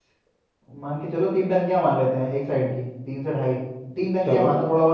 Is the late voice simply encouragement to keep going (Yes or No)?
Yes